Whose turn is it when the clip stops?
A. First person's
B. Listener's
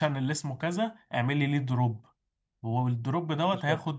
A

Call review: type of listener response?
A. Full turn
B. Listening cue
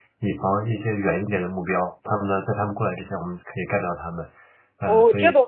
A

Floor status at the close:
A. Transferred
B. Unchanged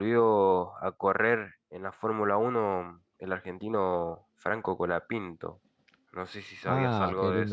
A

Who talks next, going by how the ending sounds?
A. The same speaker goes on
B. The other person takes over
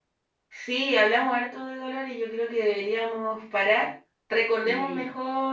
A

